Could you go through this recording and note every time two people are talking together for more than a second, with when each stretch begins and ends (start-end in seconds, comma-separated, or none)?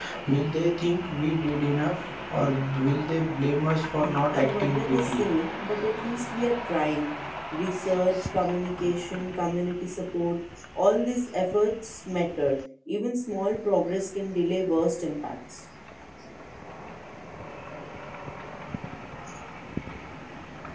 4.0-5.2